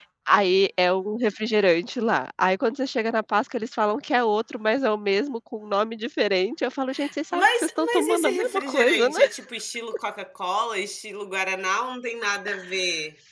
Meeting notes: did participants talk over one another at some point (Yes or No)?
Yes